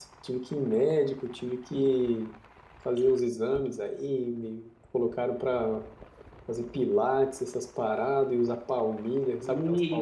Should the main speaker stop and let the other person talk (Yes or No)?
Yes